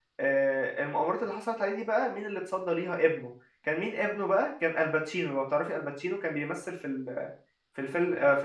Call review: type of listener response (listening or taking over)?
listening